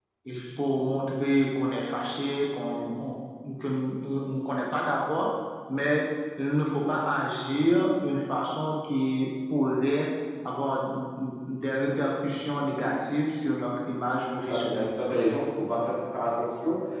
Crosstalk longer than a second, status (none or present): none